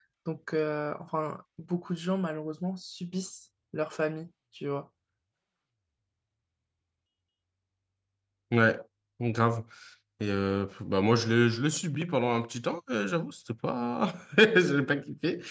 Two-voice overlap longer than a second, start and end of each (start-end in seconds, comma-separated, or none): none